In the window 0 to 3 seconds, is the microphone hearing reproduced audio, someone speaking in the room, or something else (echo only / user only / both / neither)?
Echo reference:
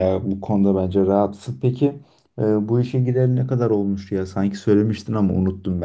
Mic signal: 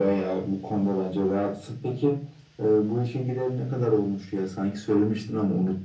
echo only